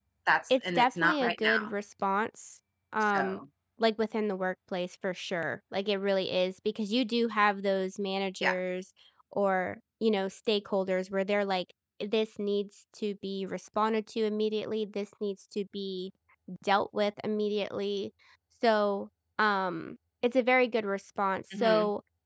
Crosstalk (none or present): present